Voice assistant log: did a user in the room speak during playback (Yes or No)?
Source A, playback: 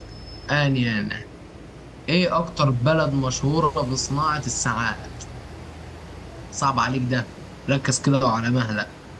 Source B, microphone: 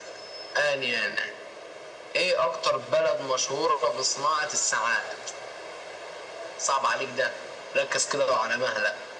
No